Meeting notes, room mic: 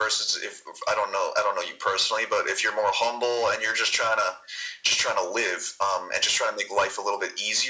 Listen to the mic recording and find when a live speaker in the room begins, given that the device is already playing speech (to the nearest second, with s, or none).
none